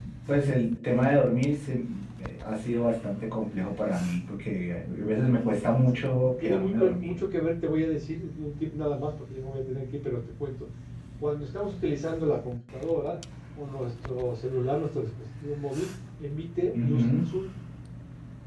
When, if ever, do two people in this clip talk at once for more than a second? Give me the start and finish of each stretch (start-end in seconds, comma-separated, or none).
5.9-7.2